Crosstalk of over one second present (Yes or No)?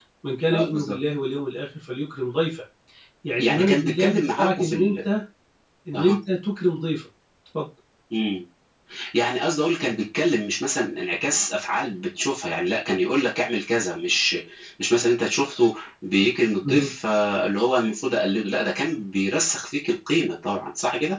Yes